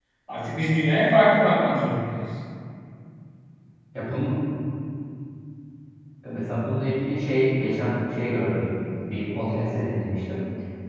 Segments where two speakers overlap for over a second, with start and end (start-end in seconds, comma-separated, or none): none